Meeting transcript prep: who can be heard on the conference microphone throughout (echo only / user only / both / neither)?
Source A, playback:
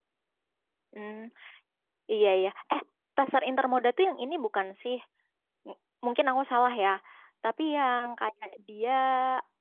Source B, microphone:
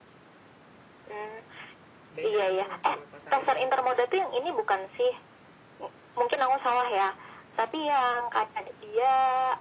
both